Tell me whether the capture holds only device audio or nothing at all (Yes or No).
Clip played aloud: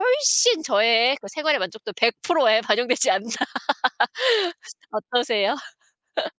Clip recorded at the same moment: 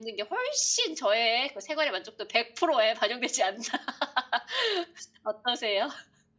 Yes